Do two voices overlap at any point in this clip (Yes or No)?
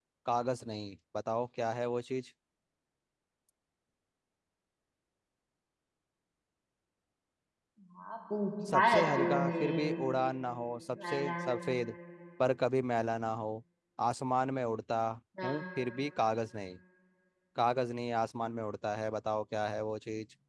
Yes